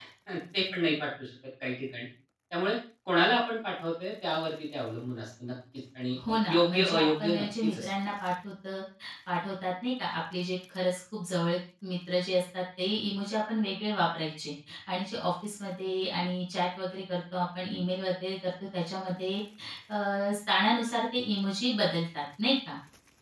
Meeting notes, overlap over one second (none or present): present